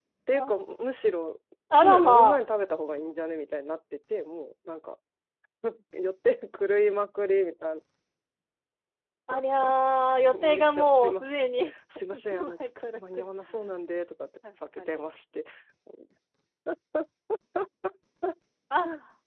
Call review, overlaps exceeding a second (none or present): present